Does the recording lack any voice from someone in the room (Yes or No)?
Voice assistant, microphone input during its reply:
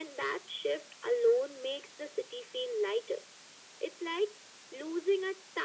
Yes